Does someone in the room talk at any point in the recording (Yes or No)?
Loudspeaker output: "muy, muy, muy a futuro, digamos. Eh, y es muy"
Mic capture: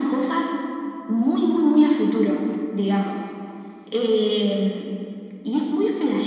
No